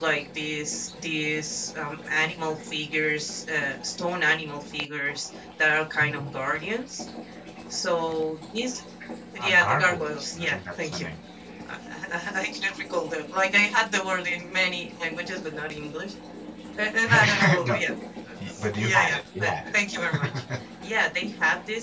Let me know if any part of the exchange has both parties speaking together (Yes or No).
Yes